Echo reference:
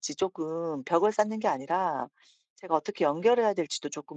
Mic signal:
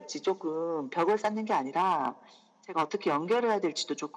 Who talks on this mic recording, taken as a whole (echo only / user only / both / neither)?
echo only